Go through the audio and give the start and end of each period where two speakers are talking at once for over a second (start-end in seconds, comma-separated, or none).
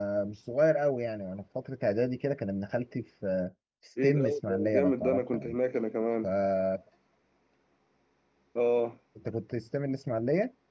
4.0-5.6